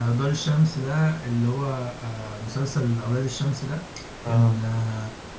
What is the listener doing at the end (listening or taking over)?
listening